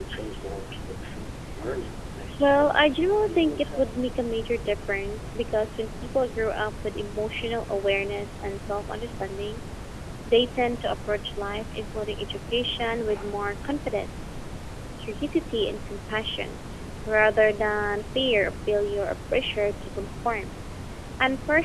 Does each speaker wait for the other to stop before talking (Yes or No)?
No